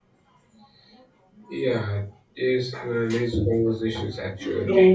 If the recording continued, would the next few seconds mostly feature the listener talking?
Yes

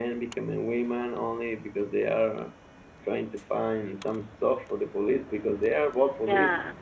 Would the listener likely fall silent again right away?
Yes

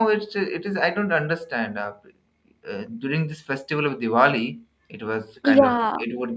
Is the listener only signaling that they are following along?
Yes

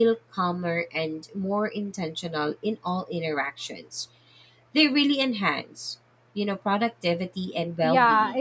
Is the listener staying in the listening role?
No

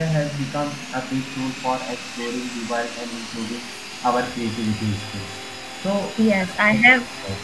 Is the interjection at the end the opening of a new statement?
Yes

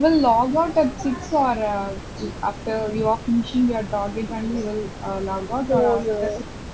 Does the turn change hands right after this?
Yes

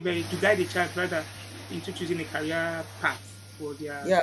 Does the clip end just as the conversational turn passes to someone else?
Yes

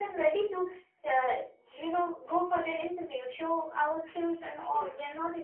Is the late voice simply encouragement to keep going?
Yes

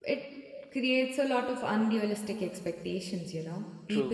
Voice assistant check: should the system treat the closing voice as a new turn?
No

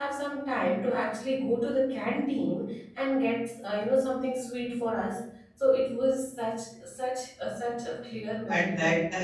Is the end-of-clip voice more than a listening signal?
Yes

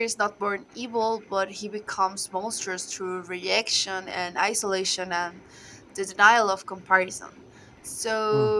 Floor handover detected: No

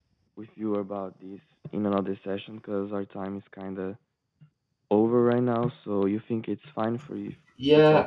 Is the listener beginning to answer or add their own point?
Yes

